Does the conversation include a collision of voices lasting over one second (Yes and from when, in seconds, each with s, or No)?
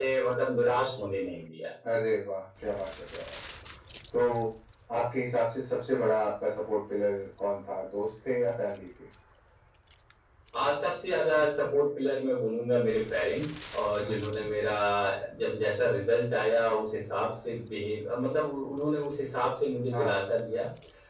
No